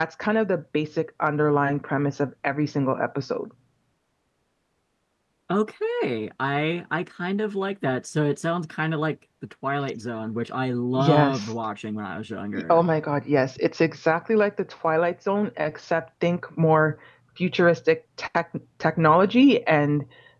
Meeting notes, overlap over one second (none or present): none